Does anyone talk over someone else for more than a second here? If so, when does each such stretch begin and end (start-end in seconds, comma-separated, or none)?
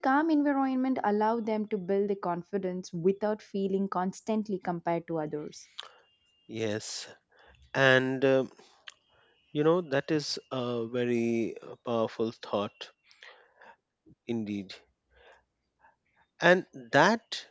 none